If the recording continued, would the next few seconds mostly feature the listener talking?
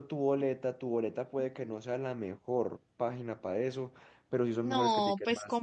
Yes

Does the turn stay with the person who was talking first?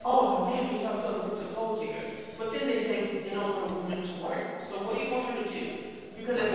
Yes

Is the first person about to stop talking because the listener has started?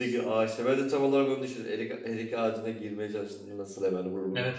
Yes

